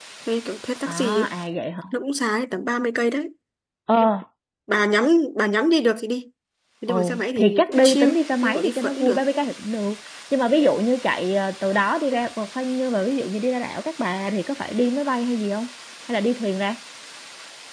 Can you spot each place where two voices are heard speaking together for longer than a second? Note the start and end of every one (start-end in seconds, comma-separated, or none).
6.9-9.2